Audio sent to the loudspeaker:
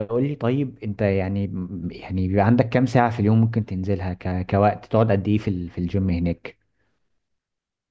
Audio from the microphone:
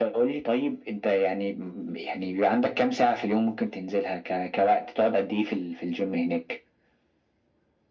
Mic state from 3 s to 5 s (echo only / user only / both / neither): echo only